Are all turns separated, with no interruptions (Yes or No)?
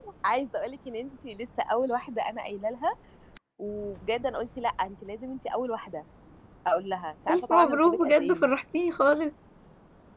No